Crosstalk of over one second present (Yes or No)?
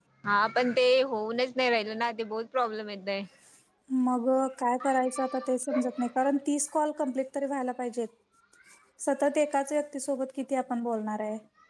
No